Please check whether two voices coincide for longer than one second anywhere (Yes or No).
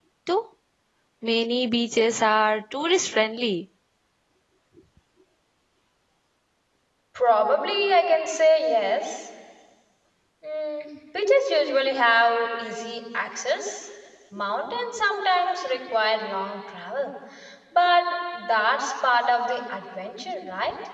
No